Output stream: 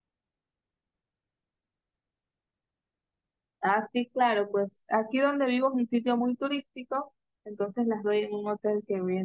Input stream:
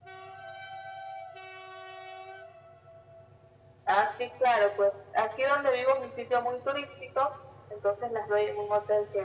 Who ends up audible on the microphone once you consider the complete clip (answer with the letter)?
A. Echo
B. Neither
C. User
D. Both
A